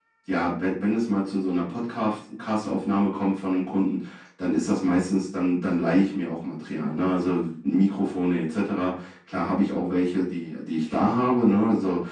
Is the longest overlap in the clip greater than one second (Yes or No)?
No